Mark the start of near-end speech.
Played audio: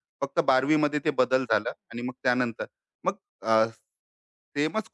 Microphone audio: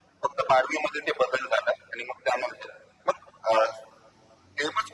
none

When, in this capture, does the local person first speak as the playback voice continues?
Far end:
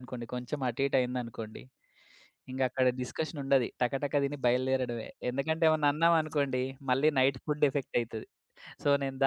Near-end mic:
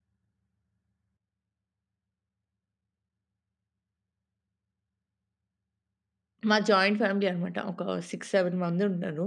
6 s

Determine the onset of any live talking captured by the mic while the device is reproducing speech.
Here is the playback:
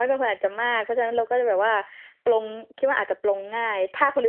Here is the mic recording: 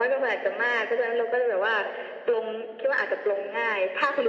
none

